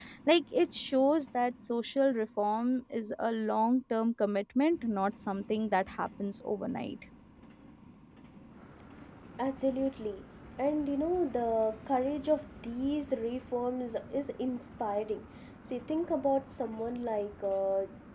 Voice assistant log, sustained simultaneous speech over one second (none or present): none